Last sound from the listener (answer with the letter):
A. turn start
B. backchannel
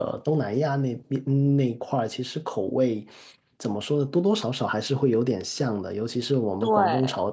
B